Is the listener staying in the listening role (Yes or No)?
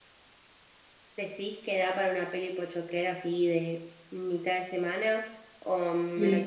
No